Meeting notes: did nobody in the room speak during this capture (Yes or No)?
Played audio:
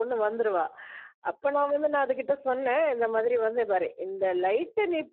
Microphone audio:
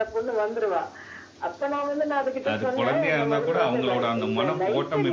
No